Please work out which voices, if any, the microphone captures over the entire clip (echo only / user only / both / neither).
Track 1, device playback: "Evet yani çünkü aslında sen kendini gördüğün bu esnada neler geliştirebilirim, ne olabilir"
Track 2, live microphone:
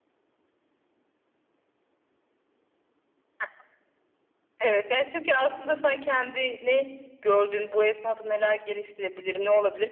echo only